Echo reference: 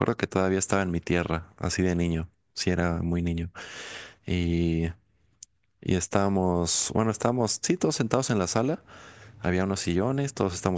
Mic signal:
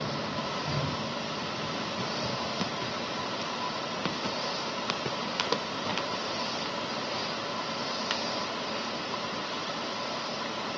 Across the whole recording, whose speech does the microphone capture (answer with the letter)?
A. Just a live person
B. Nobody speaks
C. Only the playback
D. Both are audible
B